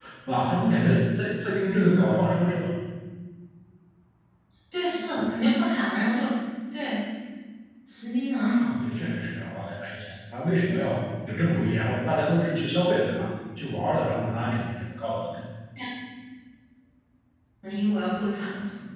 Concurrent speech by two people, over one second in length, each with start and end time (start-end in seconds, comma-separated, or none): none